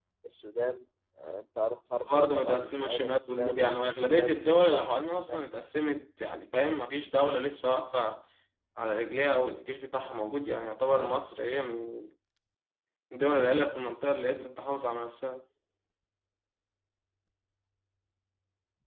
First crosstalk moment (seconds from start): 2 s

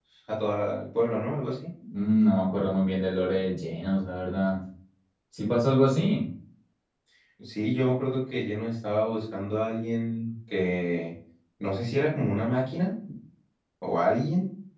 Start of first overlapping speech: none

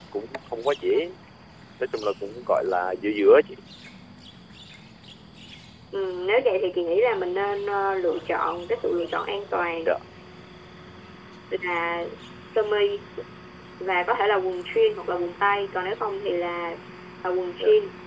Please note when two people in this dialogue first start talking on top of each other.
none

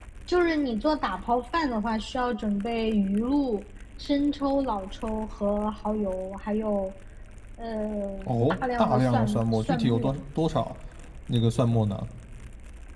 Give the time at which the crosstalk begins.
9 s

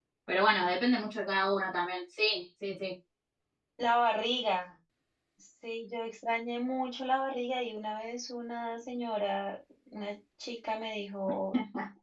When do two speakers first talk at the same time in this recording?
none

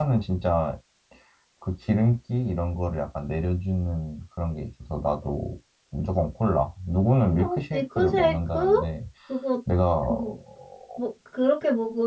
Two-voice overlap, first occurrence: 7 s

